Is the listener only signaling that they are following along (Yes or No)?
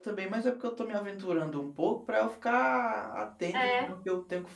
Yes